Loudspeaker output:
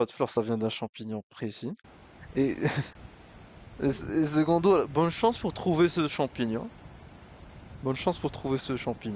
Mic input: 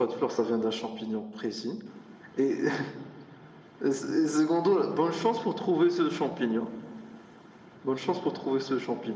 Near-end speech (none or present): none